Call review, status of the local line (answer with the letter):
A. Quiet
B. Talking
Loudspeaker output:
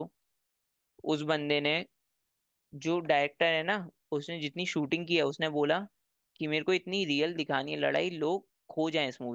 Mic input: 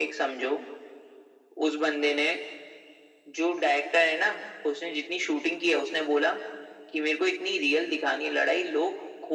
A